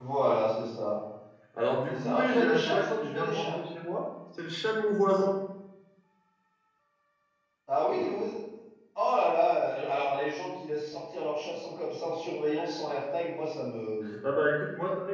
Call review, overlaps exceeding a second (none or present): present